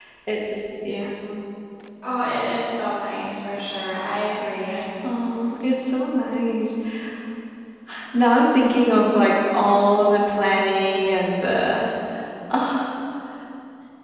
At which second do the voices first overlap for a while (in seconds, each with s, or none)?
none